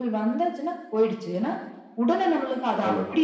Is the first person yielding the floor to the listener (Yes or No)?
No